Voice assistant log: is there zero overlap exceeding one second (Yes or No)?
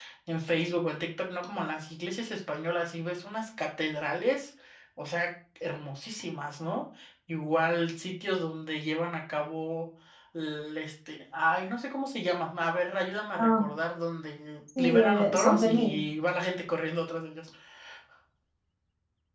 No